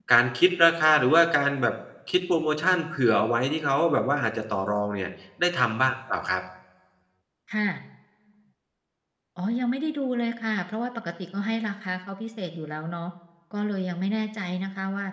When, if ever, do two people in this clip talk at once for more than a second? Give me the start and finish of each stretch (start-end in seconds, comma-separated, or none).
none